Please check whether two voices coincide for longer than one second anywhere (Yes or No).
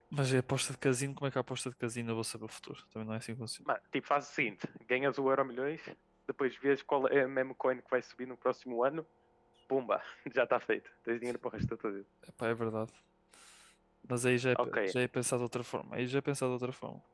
No